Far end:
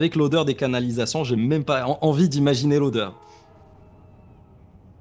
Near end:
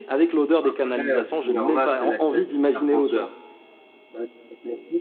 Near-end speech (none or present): present